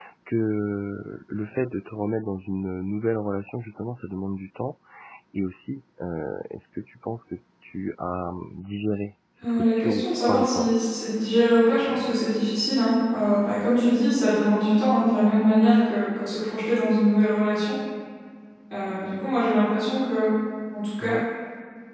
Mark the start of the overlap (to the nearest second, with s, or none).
9 s